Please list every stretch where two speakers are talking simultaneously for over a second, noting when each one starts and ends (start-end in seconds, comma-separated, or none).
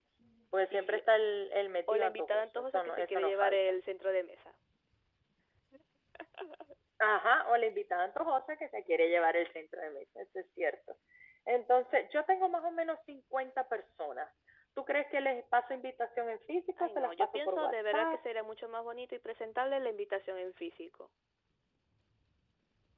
1.9-3.6, 16.8-18.2